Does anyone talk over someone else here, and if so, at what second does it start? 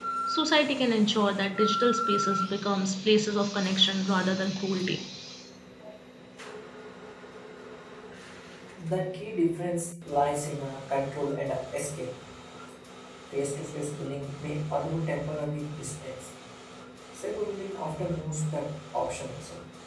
none

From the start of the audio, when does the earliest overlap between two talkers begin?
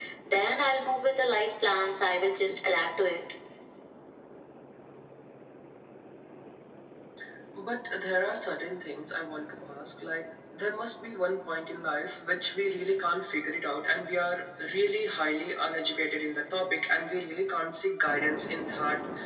none

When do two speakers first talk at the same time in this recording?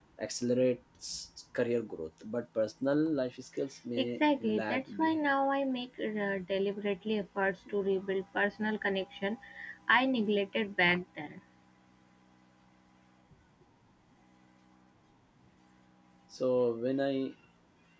4.0 s

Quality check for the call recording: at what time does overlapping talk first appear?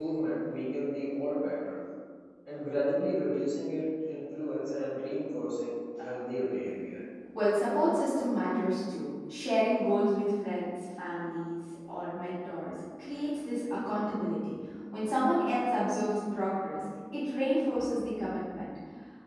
none

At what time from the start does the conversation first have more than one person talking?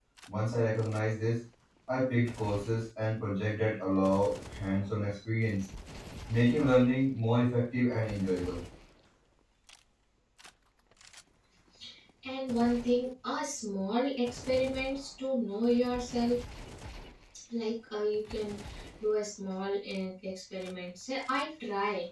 none

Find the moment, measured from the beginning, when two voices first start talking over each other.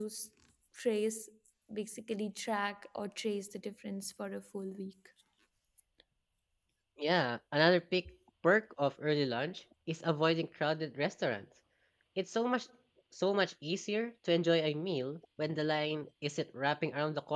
none

